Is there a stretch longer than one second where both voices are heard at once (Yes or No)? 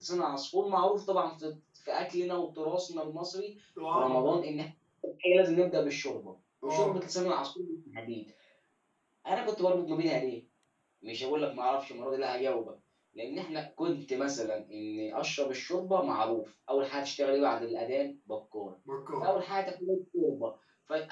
No